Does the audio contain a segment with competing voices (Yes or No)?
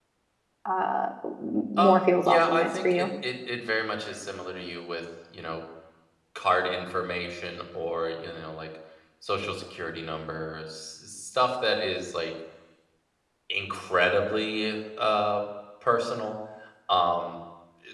Yes